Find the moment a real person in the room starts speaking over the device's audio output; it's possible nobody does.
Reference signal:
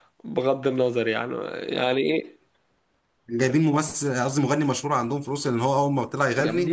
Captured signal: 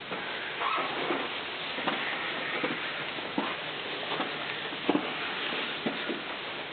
none

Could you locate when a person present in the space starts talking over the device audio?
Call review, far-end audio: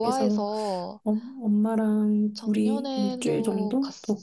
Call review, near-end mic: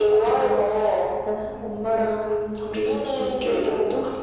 none

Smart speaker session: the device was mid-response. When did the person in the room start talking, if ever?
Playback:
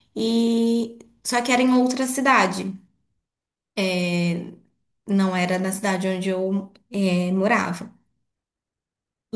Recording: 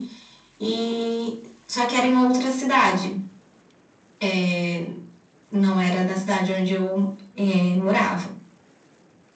none

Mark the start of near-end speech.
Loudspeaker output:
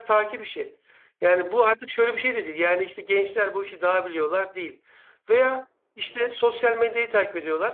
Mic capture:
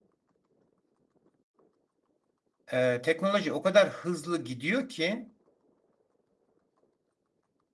2.7 s

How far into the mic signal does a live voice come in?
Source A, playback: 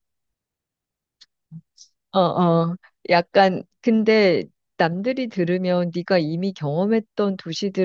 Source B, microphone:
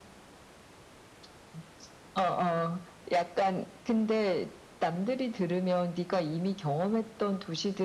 none

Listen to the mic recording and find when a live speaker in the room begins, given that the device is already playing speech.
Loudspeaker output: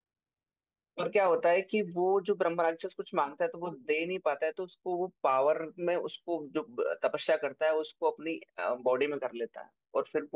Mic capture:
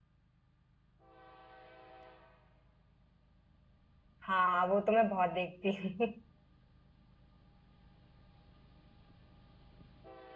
4.2 s

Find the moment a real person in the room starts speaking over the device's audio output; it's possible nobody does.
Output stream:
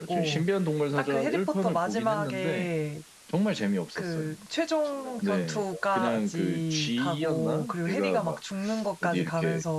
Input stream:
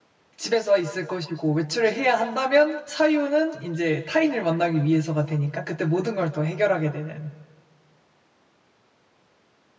0.3 s

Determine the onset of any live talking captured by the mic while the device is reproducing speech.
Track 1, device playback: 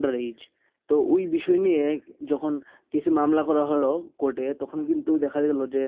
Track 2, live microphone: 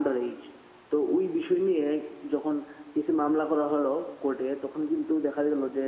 none

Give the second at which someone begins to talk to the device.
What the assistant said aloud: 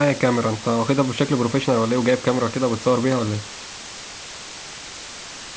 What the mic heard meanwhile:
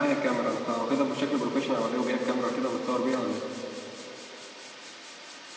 none

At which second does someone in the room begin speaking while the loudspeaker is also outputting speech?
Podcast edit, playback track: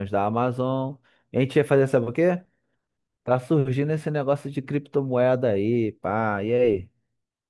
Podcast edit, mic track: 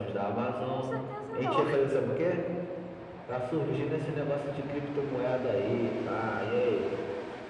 0.6 s

